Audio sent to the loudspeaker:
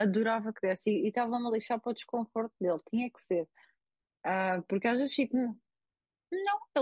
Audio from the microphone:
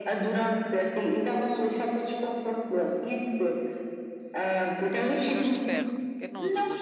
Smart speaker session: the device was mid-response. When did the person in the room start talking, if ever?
5 s

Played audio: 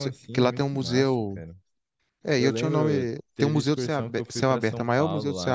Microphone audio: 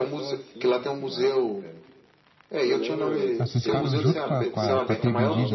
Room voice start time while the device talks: 3 s

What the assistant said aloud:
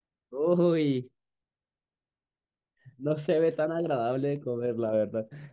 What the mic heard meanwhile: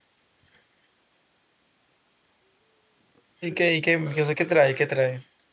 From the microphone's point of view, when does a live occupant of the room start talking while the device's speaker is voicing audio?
3 s

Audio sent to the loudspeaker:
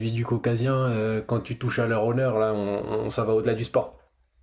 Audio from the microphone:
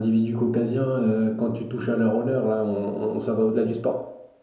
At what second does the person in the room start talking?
none

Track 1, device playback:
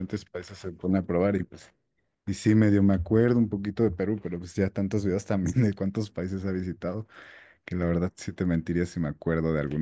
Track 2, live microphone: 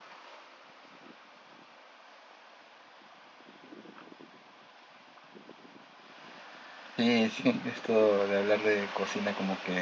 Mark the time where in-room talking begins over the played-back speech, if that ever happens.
7 s

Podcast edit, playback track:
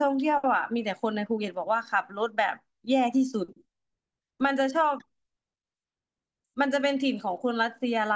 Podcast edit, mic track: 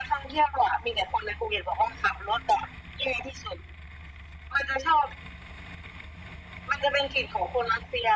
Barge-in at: none

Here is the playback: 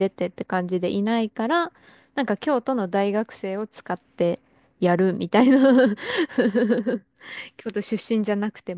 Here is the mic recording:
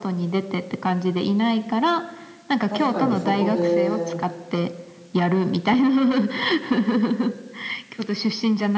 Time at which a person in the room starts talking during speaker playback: 3 s

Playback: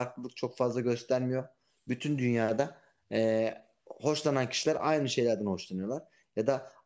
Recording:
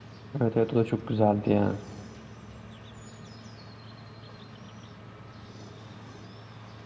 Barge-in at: 0 s

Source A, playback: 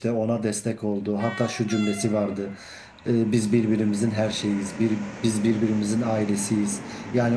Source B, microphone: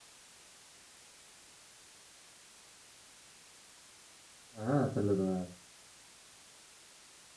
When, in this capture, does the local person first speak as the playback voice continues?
5 s

